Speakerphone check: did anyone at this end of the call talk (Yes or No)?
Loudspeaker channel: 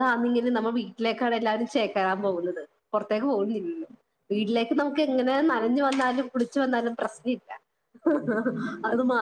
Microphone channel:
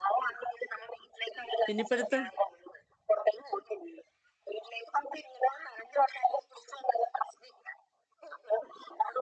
Yes